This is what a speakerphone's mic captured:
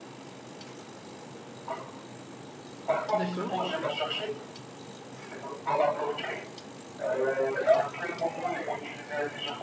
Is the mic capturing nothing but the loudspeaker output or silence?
No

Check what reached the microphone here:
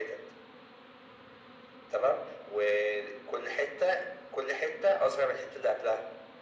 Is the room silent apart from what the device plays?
Yes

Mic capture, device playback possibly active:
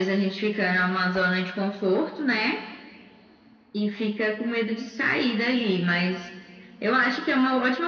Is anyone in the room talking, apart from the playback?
No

